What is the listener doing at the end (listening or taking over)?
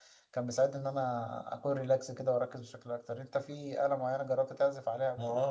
taking over